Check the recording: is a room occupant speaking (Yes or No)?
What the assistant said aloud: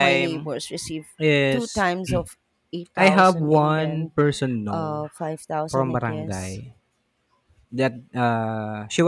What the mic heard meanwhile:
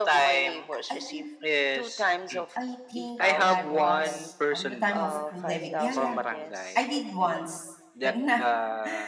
Yes